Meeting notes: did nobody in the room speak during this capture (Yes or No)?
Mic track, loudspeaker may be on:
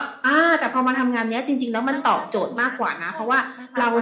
No